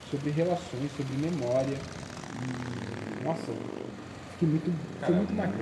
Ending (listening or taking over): taking over